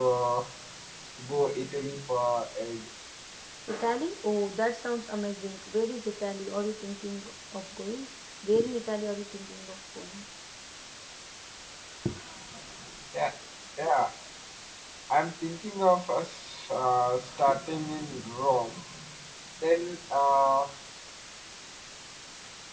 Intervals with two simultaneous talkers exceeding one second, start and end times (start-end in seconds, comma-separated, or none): none